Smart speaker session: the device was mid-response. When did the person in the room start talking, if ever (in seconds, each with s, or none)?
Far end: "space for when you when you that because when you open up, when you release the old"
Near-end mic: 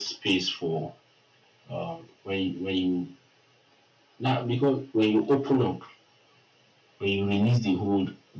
none